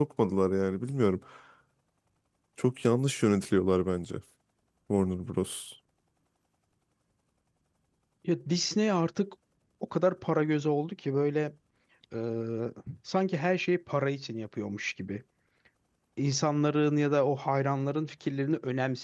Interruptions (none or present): none